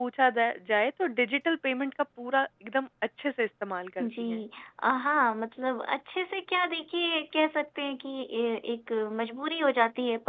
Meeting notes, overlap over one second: none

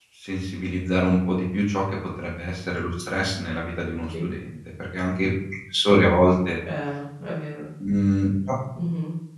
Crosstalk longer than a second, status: none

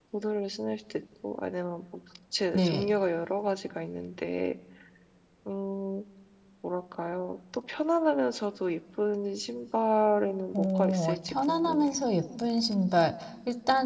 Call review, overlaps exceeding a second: present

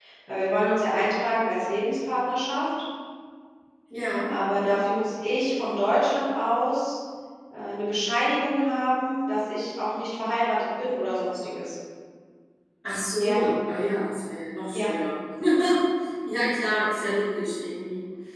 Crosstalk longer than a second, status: none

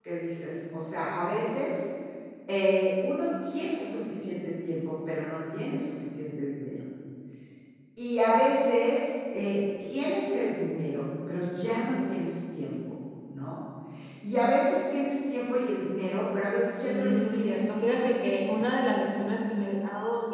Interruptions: present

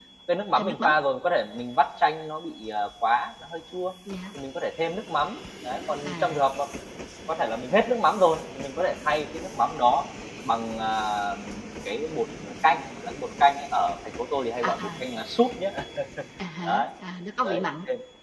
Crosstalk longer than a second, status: none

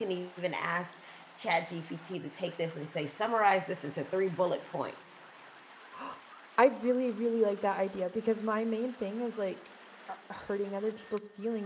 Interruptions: none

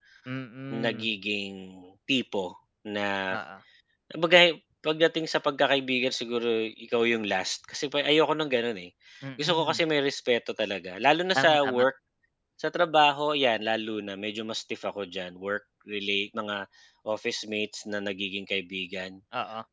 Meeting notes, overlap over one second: none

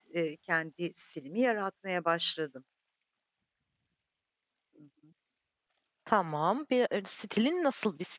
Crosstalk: none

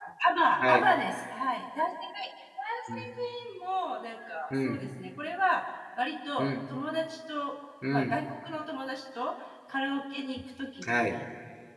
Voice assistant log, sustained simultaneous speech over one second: none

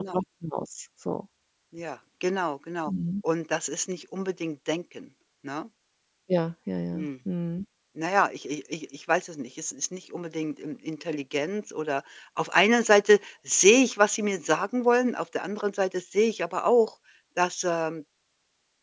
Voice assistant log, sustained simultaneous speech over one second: none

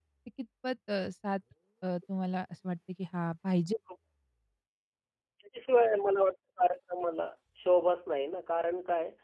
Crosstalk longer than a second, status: none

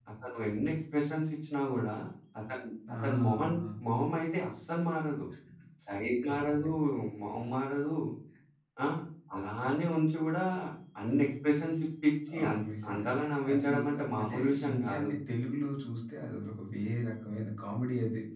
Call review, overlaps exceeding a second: present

